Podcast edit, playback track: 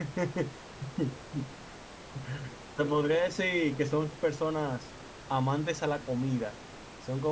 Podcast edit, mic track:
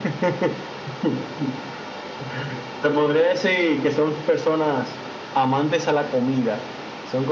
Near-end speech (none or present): none